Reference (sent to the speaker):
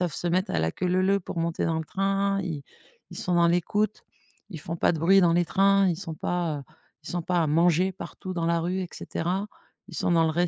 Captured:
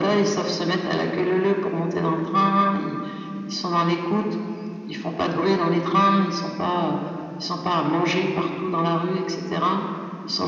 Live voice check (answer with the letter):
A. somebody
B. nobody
B